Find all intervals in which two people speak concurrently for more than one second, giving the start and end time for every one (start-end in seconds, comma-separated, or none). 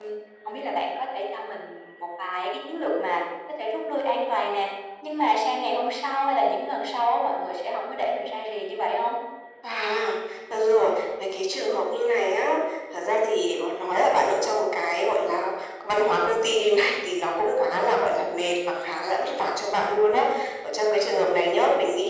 none